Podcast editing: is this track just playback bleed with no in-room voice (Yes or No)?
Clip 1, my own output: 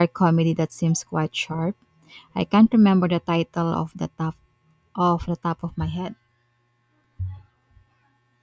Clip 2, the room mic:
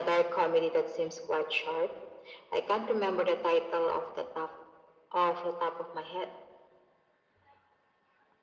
Yes